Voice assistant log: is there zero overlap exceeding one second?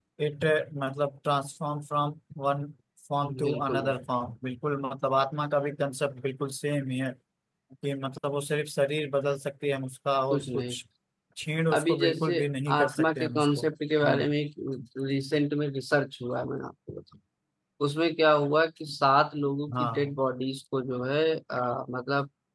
No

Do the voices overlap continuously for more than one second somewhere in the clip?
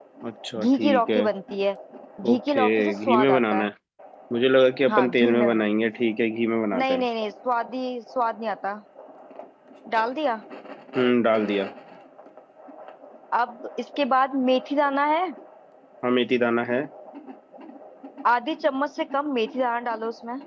Yes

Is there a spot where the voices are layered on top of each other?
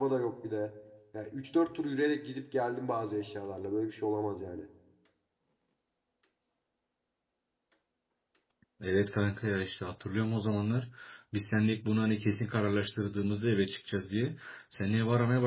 No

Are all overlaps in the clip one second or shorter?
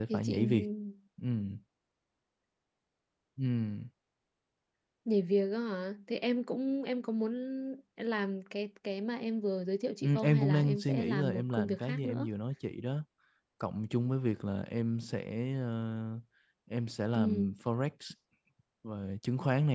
No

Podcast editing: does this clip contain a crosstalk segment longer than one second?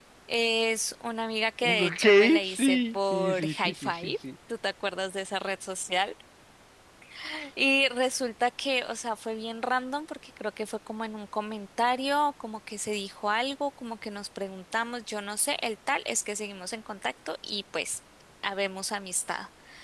Yes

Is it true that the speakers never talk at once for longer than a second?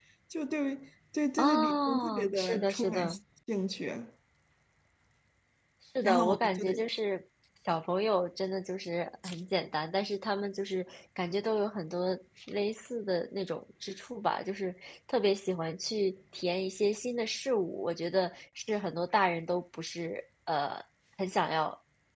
No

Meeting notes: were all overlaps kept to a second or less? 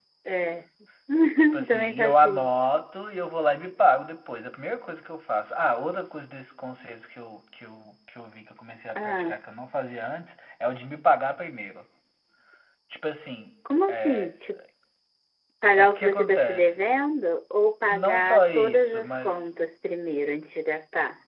No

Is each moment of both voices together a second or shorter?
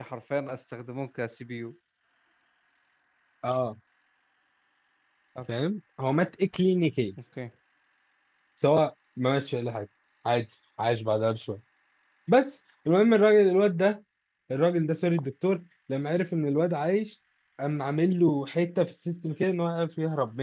Yes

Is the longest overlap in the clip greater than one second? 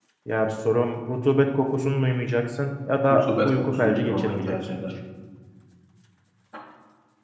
Yes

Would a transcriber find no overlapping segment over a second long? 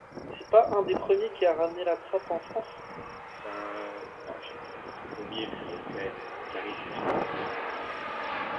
Yes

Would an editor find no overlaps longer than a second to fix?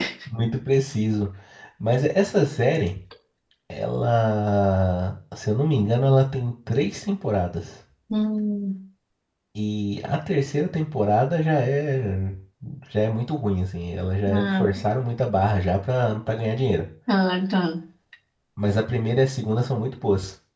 Yes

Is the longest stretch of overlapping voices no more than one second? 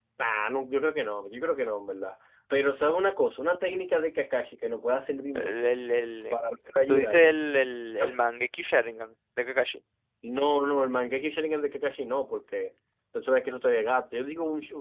Yes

